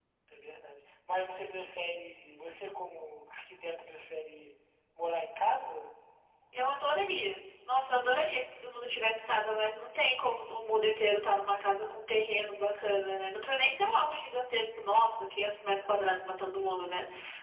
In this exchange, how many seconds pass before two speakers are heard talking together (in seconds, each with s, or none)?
none